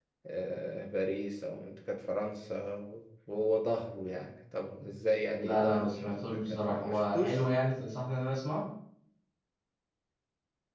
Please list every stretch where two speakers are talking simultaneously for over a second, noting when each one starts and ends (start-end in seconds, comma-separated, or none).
5.4-7.4